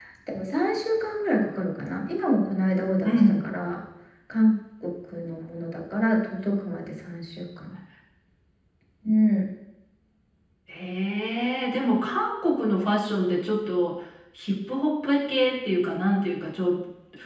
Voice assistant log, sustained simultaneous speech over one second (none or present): none